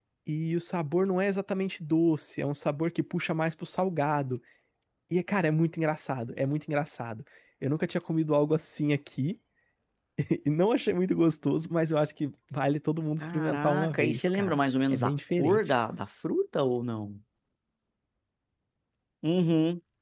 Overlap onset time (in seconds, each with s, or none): 13.2 s